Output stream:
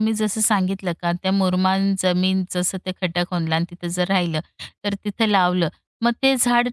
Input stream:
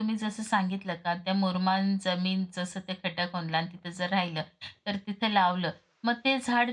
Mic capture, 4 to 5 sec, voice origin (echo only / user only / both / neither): echo only